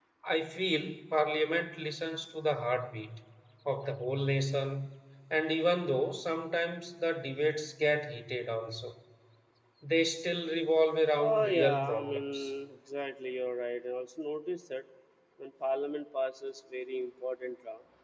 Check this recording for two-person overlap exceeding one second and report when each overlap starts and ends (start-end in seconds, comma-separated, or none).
11.2-12.5